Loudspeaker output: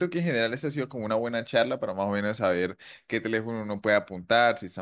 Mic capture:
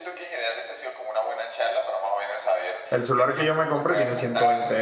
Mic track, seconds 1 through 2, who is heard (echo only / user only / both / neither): echo only